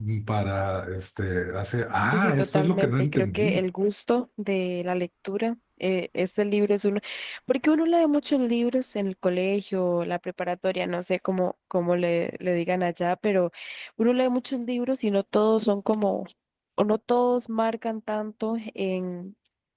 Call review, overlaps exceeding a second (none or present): present